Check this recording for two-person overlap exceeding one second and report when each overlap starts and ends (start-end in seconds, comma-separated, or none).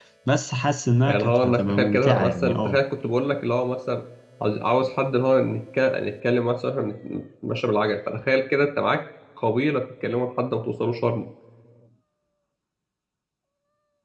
1.1-2.8